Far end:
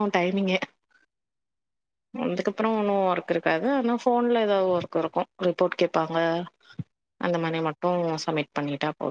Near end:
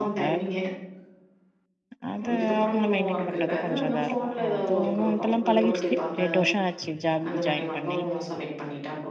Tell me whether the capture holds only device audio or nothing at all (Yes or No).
No